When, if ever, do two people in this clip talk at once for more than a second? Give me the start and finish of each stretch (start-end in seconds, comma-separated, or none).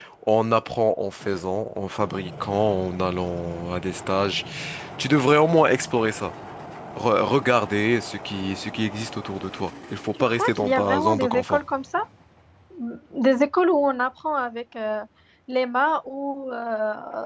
10.2-11.6